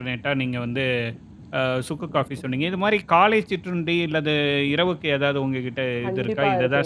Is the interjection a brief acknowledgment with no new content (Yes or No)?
No